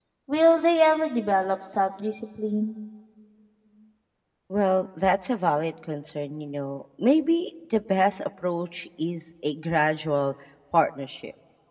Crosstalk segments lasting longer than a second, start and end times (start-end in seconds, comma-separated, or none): none